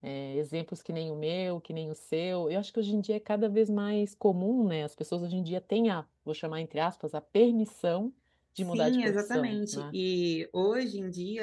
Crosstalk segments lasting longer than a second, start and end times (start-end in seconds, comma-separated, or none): 8.7-9.9